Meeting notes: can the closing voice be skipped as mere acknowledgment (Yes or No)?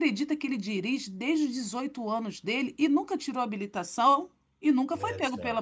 No